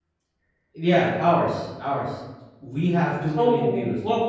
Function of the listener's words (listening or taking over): taking over